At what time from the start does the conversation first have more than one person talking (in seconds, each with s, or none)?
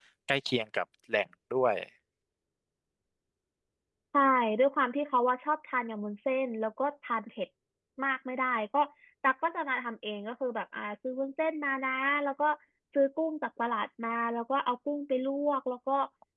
none